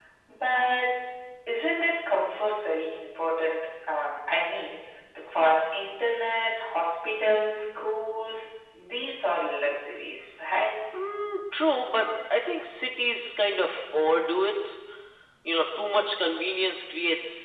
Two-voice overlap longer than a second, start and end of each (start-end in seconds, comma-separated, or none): none